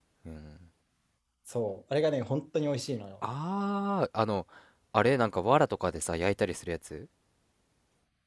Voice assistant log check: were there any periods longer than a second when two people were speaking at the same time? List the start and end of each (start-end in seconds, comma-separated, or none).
none